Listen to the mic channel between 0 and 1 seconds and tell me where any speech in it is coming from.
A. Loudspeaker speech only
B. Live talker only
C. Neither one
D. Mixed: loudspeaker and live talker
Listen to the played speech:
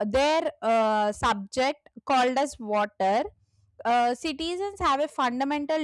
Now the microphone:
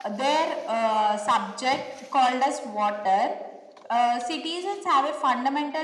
A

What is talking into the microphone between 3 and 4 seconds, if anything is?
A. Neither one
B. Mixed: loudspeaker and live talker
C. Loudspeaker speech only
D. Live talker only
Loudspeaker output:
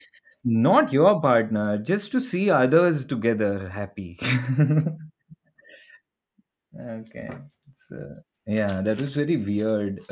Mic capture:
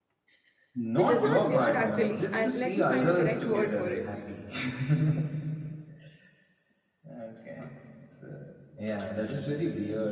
B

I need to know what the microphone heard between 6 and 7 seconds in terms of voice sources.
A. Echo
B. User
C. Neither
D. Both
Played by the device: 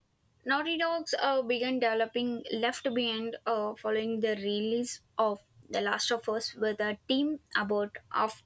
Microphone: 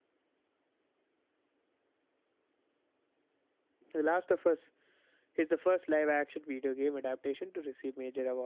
B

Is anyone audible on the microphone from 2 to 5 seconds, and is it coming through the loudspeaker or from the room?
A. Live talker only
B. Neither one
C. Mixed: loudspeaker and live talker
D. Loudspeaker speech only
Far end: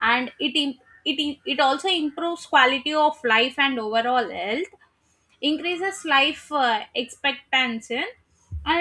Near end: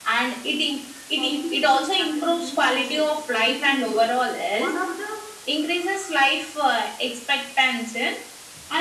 C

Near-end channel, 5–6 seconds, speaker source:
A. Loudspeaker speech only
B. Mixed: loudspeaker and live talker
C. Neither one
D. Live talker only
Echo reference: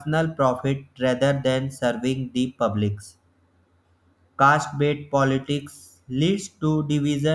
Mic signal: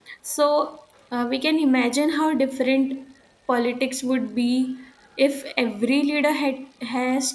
D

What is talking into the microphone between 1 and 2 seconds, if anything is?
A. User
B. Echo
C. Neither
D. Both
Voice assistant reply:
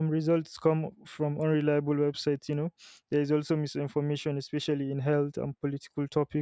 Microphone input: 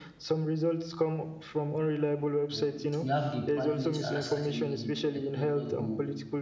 B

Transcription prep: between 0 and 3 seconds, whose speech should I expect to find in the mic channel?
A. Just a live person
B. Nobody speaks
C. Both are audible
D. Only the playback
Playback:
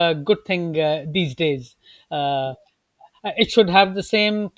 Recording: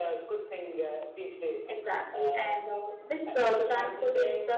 C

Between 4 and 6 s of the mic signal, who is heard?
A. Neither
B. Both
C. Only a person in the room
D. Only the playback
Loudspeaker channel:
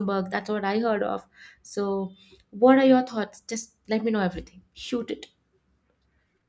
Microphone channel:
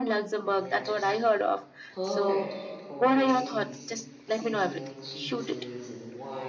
B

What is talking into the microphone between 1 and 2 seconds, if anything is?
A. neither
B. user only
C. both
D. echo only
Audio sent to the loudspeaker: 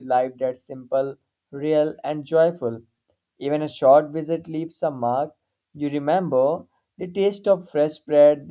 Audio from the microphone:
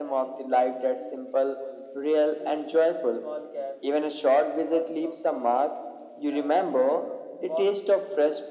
C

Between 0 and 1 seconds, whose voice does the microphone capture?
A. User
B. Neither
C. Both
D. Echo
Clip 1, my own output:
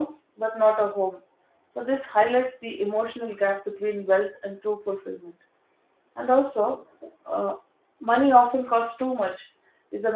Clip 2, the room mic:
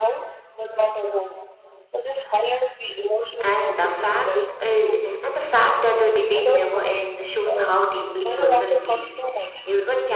D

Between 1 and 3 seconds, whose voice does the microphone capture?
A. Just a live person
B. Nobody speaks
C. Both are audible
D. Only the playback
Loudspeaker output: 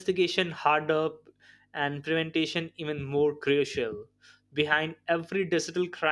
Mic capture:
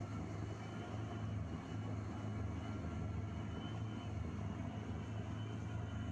B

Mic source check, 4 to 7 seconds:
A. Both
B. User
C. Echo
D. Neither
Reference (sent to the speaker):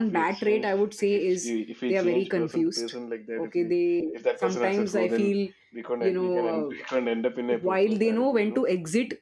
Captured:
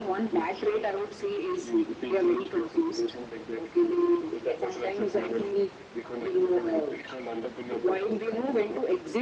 C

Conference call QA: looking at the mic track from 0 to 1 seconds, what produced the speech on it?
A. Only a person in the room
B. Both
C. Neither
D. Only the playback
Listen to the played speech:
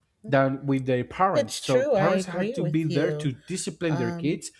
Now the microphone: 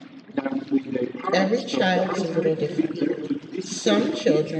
D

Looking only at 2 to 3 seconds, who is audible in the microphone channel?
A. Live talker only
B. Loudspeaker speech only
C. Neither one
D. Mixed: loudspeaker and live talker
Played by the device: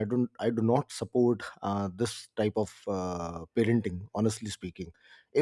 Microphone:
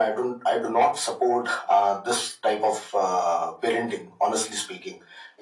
B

